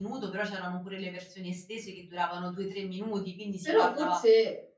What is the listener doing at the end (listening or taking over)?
taking over